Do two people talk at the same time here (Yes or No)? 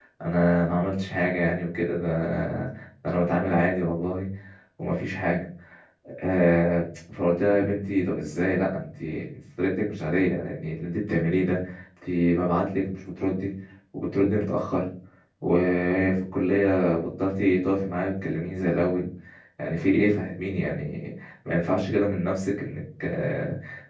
No